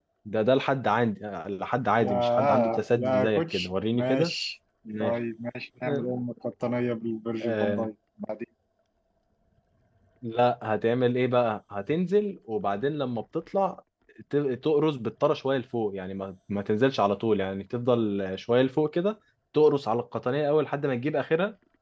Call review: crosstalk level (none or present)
present